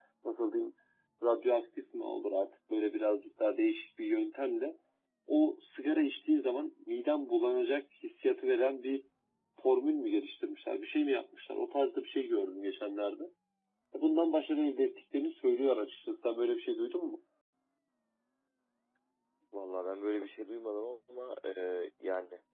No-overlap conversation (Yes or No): Yes